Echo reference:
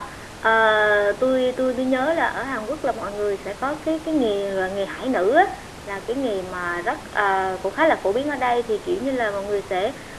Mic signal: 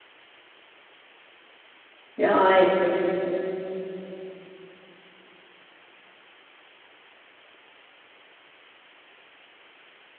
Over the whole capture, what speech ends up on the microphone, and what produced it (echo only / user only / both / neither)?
user only